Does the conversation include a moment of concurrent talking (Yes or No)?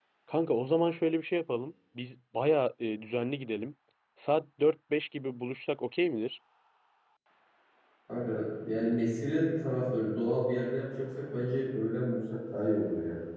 No